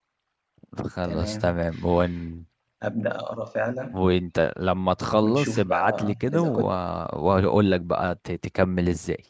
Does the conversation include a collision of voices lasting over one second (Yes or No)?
Yes